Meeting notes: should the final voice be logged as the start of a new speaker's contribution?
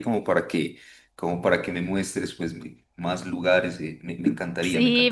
Yes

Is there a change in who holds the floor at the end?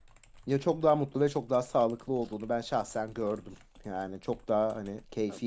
No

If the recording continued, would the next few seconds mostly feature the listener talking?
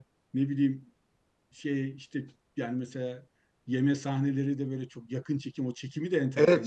Yes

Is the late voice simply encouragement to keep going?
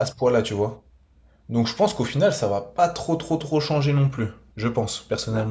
No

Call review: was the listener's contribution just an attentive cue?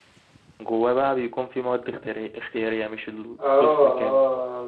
No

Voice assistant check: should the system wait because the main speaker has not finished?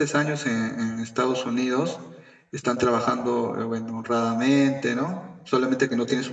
Yes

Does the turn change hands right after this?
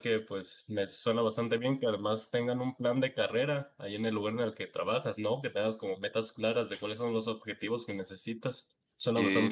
Yes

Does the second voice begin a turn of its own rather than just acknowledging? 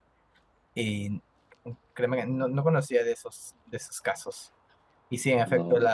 No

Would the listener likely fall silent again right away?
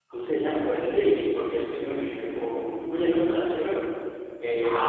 No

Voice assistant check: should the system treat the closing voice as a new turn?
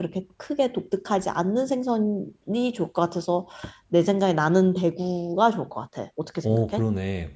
Yes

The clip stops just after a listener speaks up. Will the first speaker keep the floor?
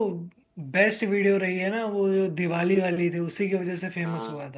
No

